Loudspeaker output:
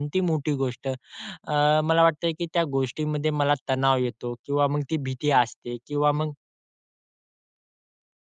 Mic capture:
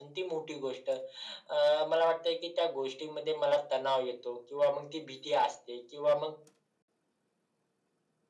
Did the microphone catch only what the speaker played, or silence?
Yes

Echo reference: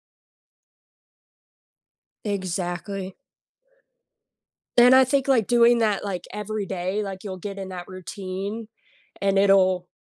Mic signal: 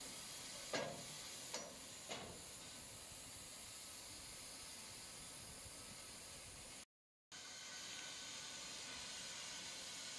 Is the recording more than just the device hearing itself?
No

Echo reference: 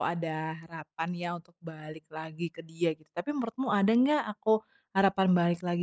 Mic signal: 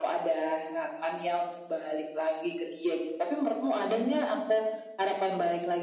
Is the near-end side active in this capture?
No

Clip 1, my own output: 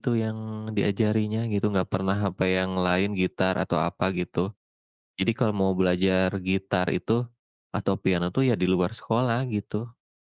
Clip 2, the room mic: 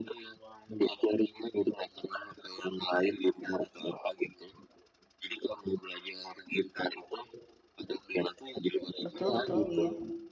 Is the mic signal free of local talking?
No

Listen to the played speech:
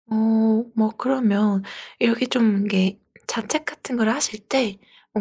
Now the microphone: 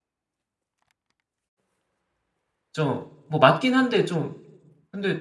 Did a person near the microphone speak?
Yes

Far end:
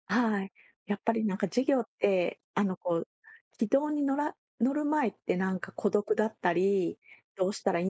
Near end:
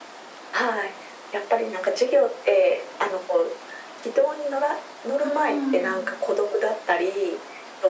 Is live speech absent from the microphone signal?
No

